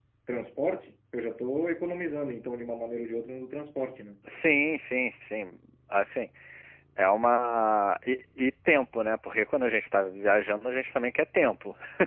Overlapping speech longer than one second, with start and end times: none

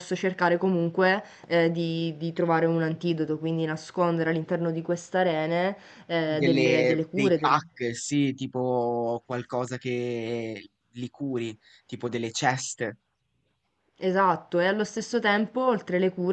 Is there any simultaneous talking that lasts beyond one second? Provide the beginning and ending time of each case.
6.3-7.6

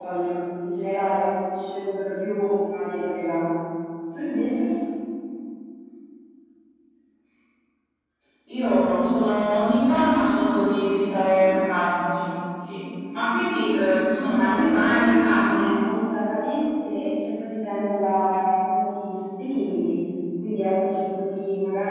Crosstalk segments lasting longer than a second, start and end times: 14.3-15.7

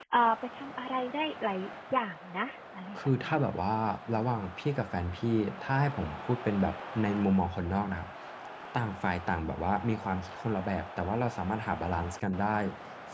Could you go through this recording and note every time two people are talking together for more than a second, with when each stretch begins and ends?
none

